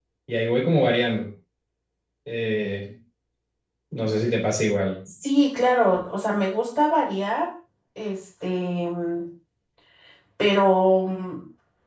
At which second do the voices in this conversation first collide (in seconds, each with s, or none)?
none